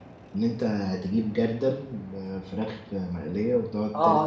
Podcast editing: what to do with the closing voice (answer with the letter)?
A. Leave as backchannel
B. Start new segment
B